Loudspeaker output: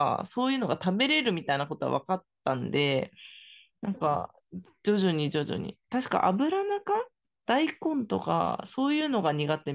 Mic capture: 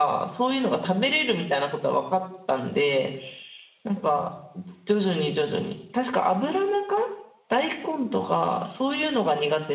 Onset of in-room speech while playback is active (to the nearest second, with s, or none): none